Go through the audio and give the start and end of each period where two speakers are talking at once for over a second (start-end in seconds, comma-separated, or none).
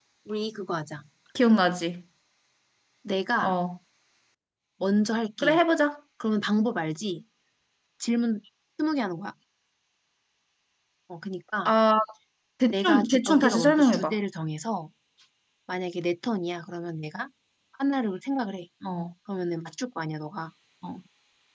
12.7-14.2